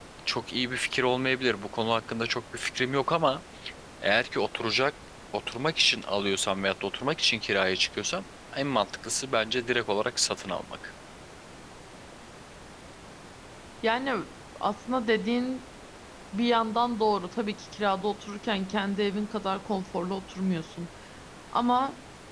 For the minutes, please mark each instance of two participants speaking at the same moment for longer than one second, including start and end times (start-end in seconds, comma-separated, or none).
none